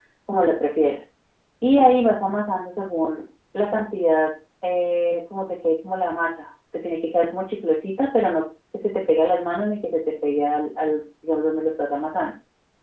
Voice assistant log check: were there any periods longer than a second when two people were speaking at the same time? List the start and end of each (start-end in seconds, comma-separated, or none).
none